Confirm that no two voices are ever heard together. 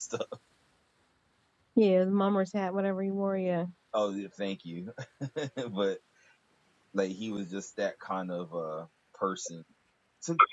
Yes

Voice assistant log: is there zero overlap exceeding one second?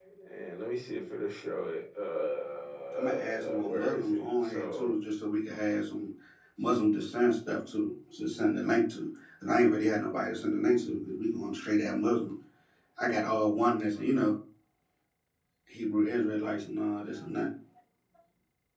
No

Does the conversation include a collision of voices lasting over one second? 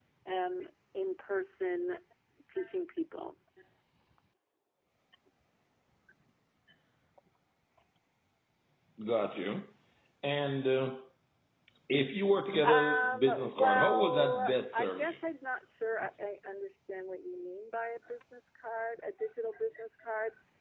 Yes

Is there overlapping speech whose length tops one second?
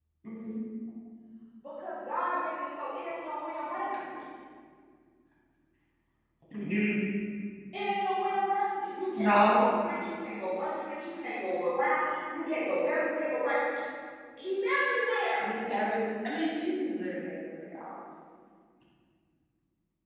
No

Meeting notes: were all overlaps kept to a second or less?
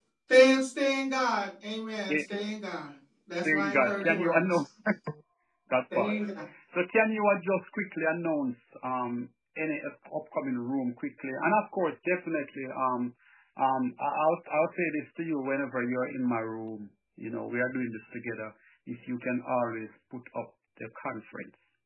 No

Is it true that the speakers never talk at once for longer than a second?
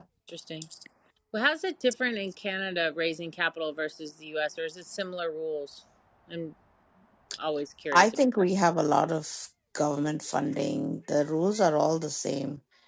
Yes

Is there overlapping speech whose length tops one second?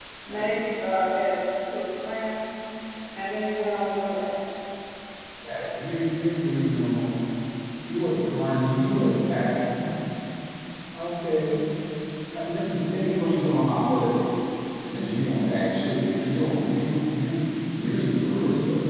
No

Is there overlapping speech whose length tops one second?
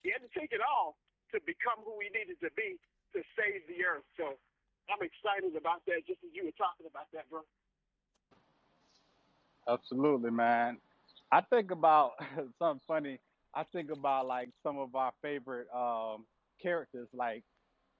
No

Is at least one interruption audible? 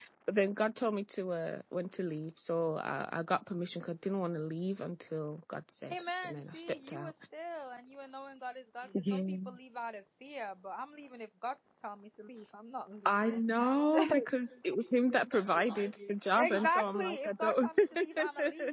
Yes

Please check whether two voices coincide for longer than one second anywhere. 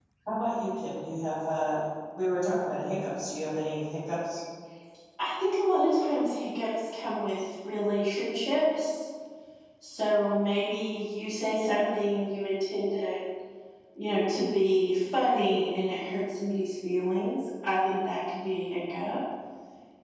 No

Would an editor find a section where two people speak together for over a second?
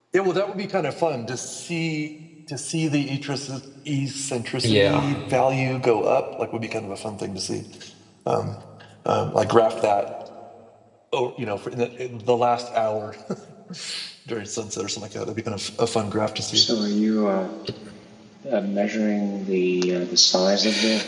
No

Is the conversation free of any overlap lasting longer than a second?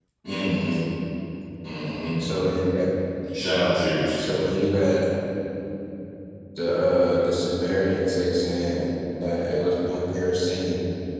Yes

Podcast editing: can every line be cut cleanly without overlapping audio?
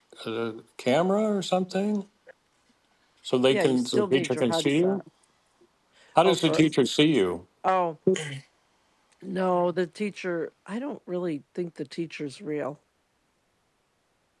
No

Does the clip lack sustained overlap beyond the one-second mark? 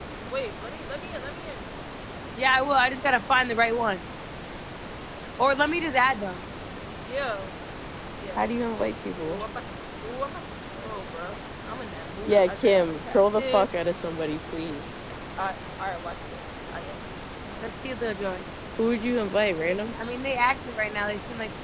No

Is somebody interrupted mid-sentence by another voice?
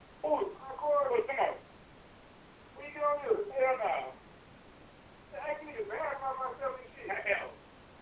No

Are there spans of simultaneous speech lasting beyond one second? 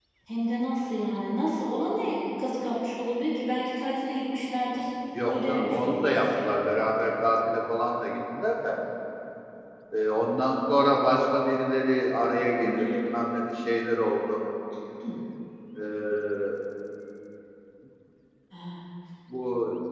Yes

